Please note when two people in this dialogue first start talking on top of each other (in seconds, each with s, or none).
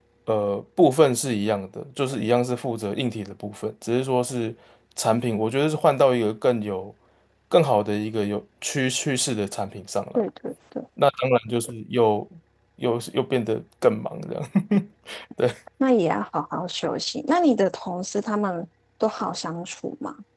none